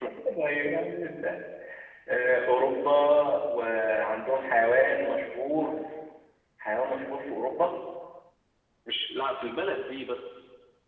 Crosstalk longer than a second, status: none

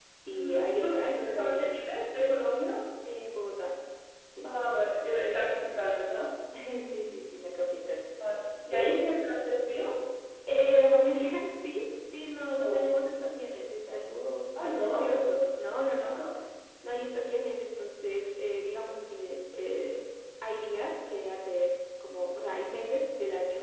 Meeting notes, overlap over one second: present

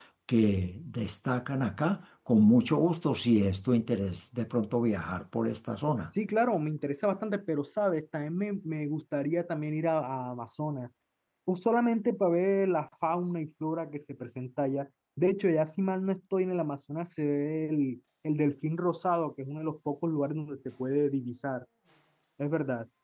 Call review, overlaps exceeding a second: none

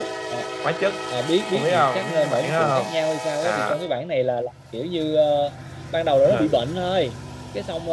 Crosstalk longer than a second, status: present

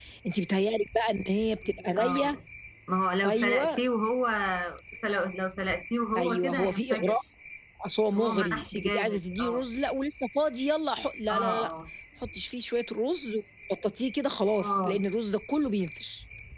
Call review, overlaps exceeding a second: present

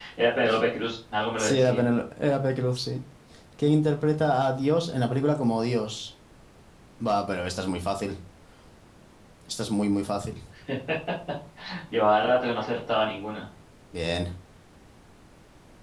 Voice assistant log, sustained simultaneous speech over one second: none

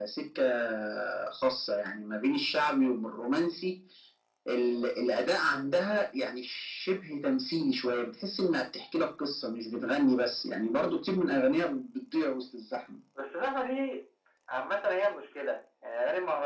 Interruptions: none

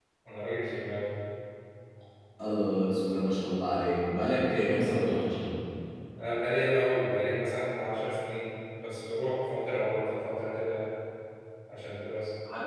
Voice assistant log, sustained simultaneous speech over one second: none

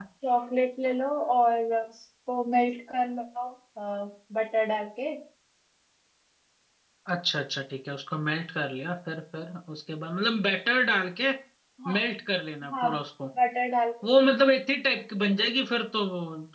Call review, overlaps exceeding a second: none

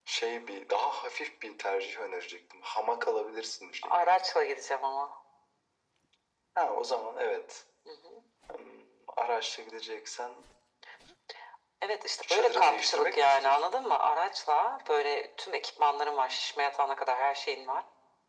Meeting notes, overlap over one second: present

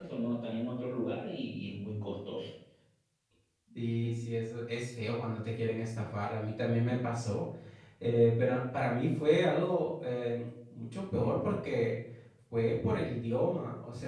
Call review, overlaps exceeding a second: none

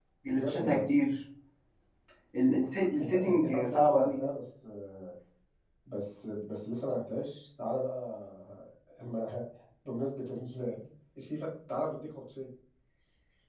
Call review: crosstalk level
present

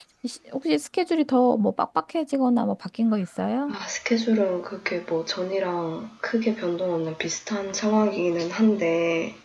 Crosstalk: none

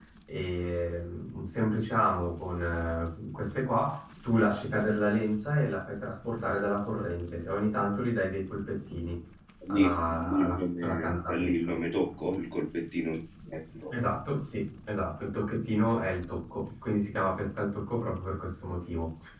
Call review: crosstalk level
present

